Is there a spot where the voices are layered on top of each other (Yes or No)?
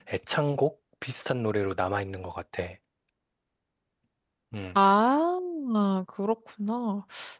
No